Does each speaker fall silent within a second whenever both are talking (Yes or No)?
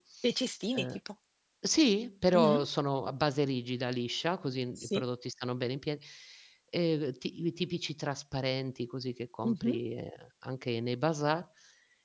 Yes